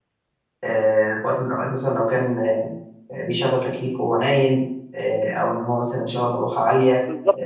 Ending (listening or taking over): taking over